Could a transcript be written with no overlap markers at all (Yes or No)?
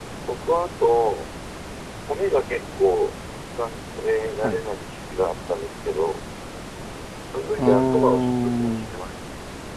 No